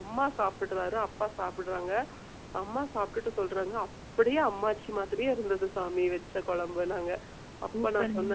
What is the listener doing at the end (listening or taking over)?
listening